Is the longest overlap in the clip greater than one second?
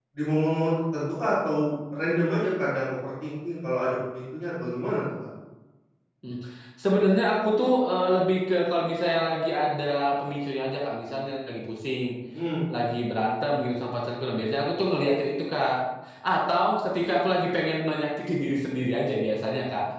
No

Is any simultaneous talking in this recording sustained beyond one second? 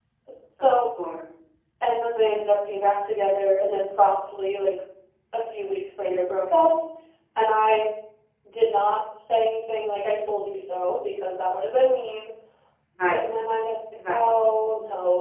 No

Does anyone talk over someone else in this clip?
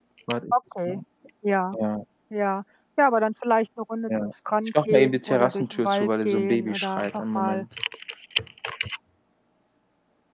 Yes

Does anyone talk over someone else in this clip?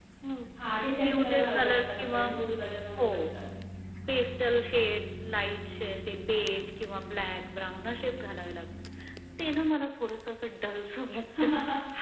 Yes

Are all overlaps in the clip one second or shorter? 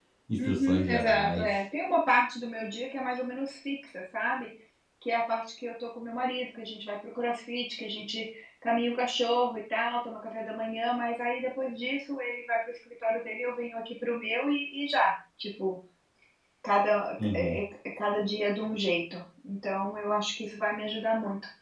No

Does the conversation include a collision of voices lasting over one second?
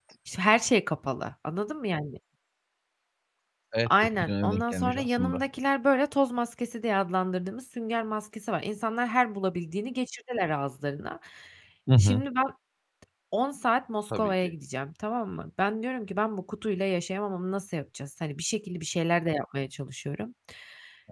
Yes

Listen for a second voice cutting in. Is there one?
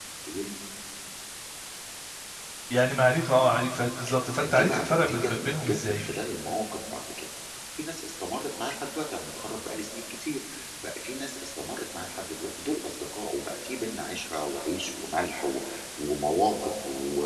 Yes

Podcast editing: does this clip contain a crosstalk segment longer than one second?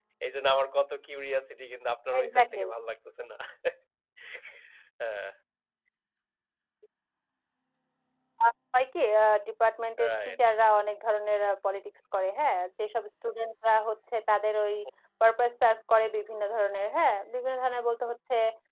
No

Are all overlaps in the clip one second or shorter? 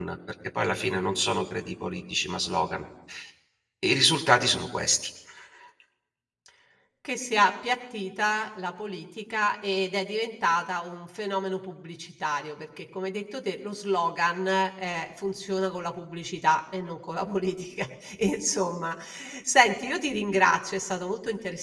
Yes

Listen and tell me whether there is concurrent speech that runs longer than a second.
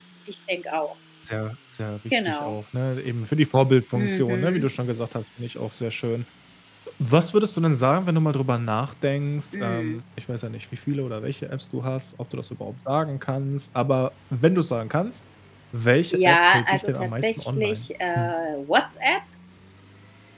Yes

